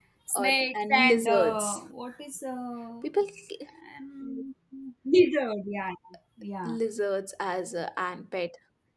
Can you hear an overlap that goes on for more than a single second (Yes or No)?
Yes